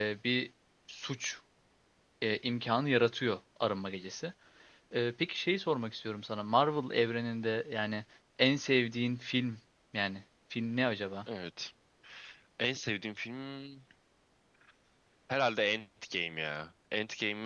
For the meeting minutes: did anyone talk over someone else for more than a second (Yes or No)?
No